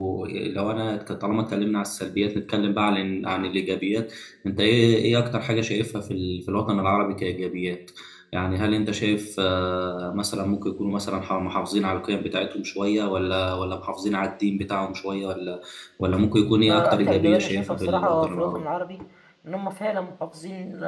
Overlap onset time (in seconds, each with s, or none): 16.6 s